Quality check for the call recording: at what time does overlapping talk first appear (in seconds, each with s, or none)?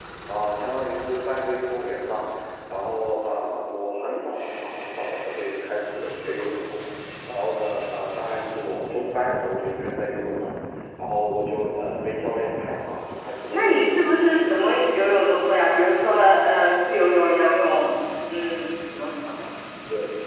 13.5 s